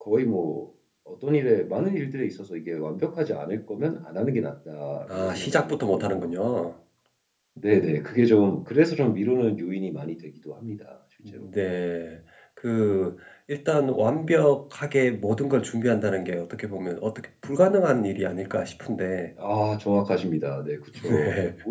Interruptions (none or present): present